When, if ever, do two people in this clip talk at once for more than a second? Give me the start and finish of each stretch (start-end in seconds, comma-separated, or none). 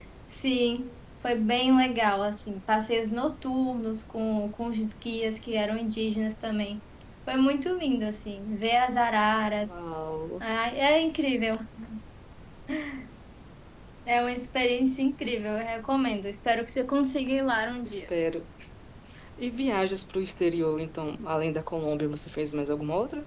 none